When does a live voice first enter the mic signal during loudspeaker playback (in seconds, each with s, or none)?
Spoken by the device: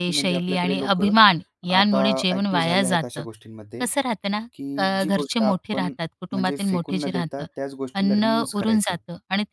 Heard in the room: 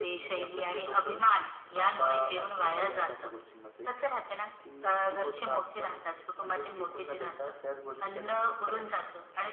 none